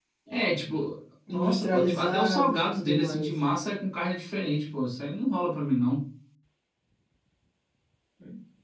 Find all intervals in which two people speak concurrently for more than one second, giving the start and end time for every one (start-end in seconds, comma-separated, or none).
1.3-3.3